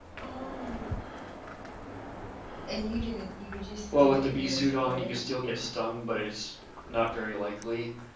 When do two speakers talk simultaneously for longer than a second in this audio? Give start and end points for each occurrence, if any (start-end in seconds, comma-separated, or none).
3.9-5.2